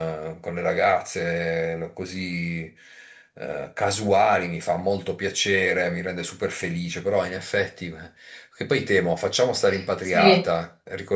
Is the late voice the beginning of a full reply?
No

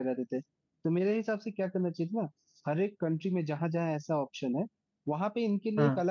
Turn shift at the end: No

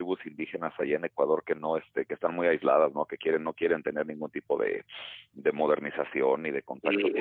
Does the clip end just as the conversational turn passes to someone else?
Yes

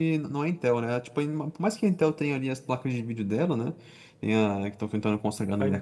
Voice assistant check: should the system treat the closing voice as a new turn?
No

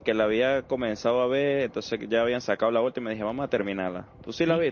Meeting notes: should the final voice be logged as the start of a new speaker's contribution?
Yes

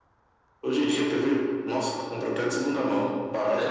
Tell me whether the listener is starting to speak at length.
Yes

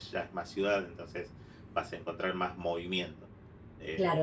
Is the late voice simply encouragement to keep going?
No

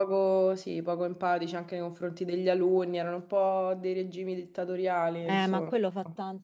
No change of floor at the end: No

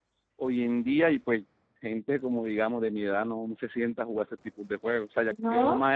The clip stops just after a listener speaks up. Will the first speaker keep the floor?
Yes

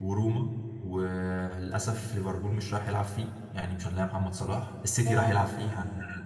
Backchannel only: Yes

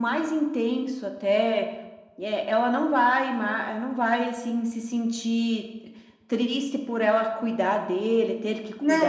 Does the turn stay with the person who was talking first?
No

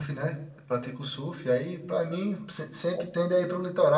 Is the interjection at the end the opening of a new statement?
No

